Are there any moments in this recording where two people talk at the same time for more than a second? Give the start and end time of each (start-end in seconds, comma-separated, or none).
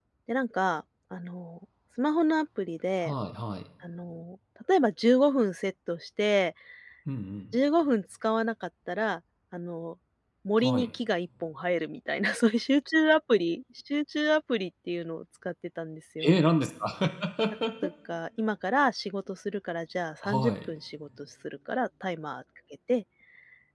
none